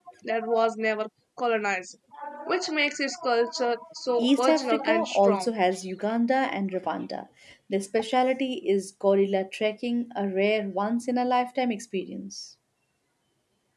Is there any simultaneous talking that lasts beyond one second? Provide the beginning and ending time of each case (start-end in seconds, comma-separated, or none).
4.2-5.5